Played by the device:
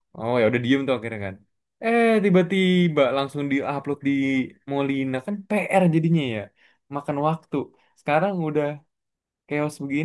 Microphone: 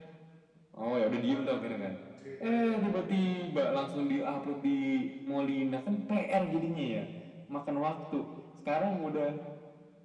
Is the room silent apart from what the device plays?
No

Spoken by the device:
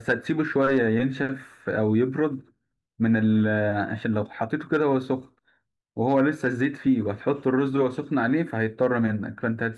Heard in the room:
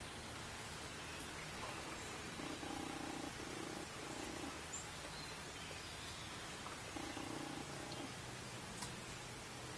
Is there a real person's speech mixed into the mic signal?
No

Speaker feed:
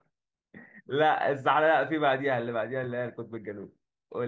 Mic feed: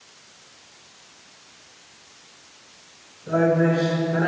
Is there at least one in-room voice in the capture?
Yes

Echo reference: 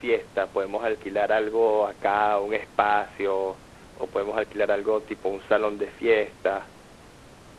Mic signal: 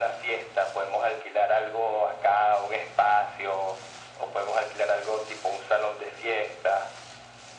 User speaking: No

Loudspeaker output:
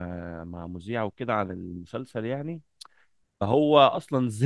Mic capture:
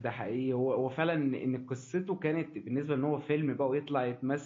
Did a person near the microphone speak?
Yes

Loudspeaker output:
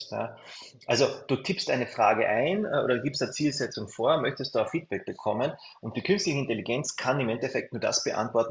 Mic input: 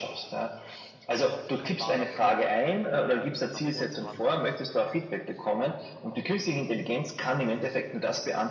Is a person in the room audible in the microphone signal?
Yes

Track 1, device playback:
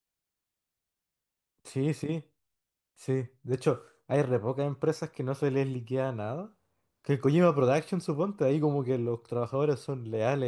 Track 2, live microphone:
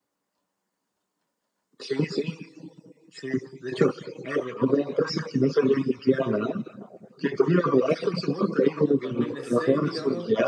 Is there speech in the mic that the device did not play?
Yes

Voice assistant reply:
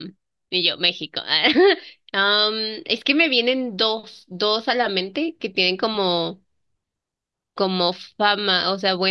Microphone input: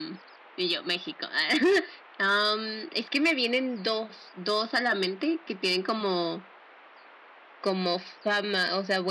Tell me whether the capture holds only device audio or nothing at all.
Yes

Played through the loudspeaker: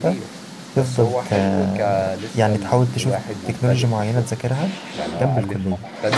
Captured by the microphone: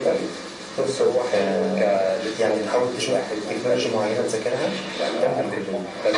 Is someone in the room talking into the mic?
No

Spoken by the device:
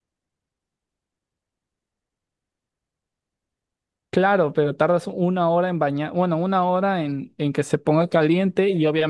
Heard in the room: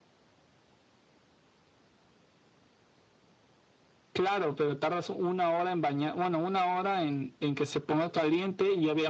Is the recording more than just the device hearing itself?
No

